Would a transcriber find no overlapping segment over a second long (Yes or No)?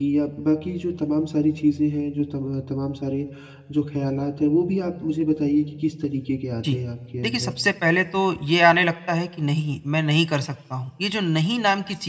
Yes